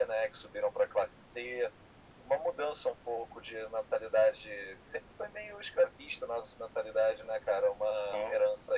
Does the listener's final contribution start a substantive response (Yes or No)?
No